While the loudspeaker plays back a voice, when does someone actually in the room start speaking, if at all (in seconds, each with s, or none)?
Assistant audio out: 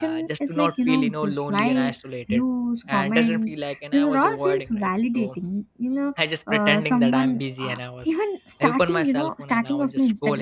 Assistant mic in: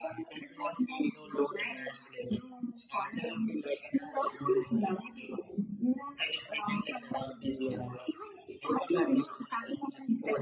none